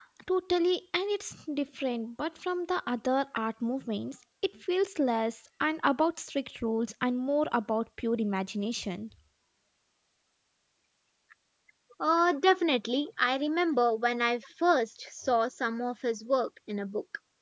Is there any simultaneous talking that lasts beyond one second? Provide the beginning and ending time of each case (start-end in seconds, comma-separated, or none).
none